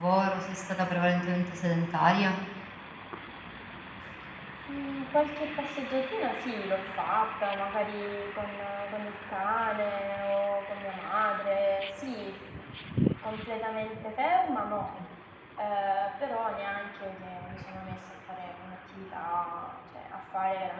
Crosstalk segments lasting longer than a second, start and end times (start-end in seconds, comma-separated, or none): none